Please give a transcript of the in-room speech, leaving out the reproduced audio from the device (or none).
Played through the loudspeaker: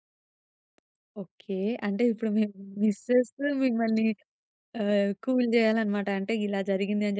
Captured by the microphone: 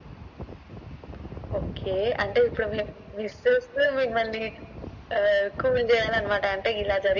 none